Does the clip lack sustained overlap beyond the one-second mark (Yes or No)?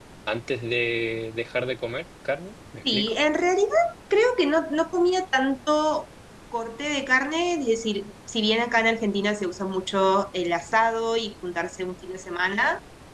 Yes